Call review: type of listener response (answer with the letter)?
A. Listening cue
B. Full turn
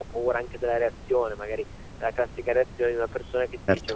A